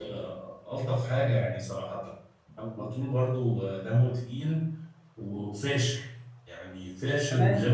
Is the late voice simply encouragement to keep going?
No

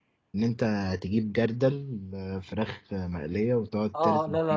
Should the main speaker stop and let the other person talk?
Yes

